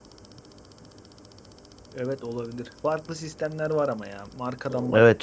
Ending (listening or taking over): taking over